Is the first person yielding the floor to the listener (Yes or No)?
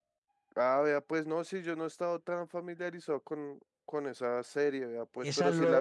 Yes